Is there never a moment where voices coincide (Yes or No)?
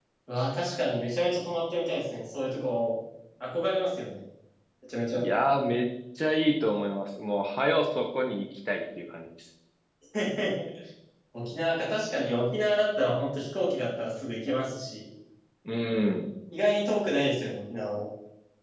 Yes